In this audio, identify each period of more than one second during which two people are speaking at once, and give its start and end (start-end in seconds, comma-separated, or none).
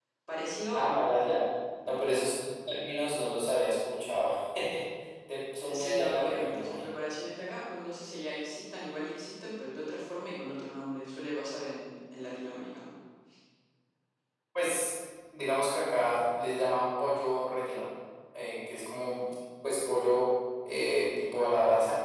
5.7-6.9